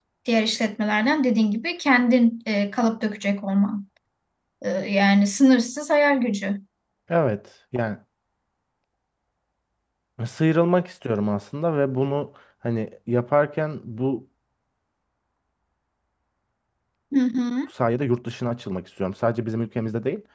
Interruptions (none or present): none